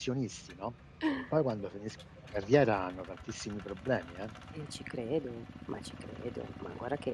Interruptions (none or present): none